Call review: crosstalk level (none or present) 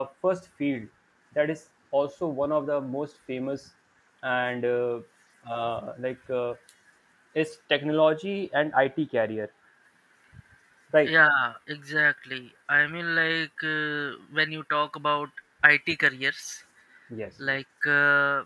none